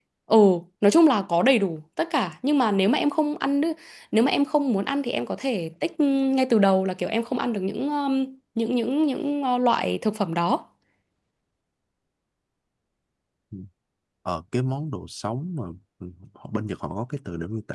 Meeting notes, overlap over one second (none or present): none